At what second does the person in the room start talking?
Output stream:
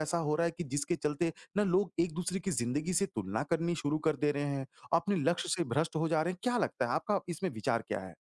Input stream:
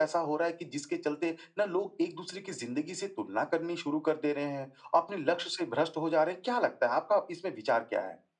none

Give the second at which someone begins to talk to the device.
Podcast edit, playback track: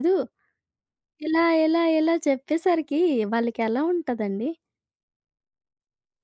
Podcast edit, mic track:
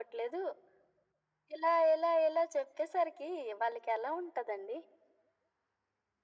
none

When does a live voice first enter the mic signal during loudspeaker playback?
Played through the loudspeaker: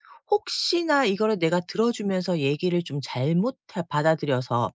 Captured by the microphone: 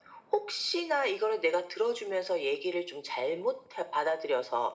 none

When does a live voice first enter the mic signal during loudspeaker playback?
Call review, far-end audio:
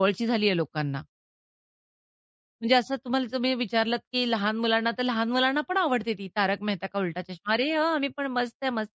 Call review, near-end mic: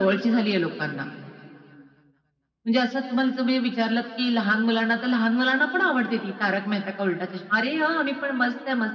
none

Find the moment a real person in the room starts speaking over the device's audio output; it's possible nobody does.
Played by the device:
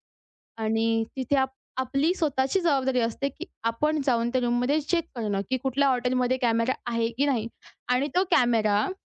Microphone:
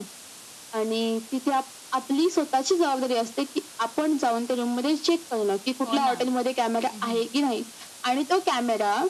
5.9 s

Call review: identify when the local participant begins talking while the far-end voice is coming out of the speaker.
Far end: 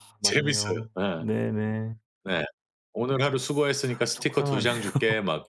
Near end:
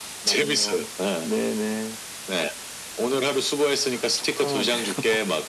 none

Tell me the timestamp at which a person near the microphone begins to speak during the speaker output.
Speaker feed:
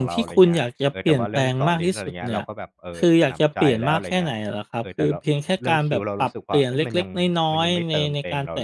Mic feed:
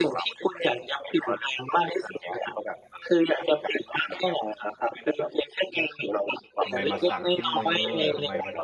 6.6 s

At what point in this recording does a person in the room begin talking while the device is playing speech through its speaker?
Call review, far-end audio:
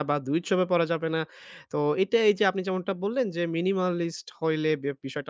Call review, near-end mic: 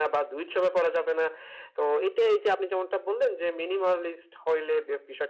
none

